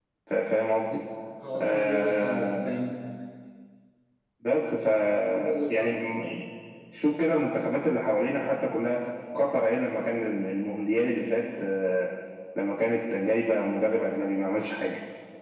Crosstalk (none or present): present